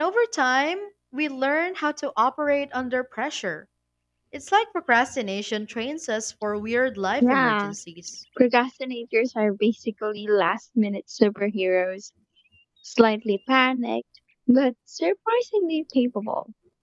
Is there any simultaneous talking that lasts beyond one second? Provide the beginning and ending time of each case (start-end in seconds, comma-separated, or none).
none